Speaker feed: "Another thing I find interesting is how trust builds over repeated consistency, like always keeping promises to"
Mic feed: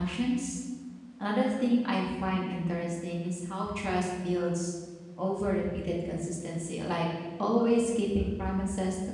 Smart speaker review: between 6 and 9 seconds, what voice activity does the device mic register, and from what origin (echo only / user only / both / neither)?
echo only